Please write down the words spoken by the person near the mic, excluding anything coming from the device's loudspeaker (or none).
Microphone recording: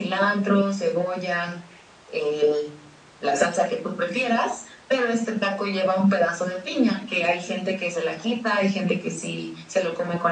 none